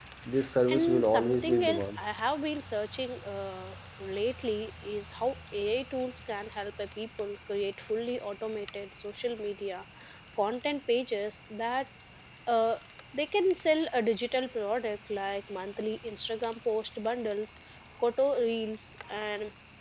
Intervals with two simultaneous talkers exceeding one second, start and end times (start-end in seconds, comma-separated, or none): 0.7-2.0